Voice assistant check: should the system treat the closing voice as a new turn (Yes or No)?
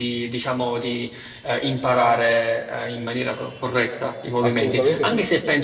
No